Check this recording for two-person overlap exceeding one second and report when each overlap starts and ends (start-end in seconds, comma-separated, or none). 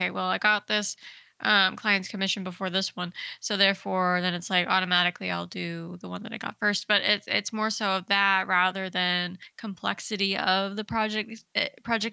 none